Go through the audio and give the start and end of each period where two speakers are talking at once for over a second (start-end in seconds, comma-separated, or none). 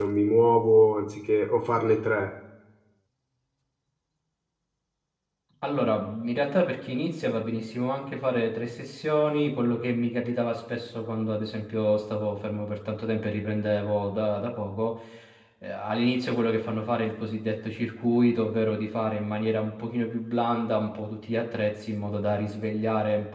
none